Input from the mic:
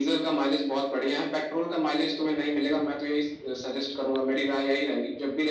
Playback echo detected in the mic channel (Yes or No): Yes